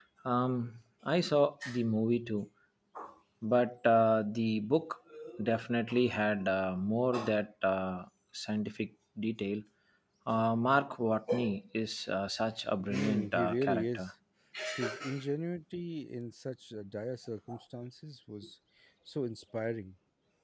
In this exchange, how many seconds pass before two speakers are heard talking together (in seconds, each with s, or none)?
12.9 s